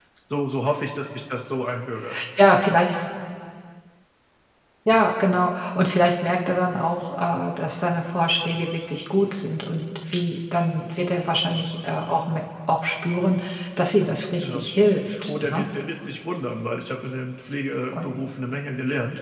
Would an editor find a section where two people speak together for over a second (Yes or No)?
No